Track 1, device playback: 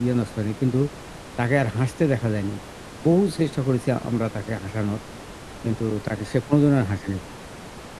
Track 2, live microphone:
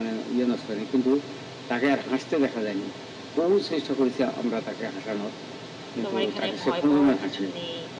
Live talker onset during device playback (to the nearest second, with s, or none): 6 s